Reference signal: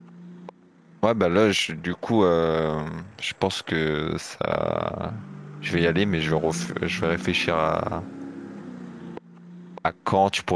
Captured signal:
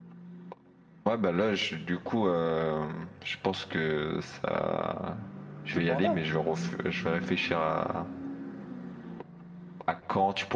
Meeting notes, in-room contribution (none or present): present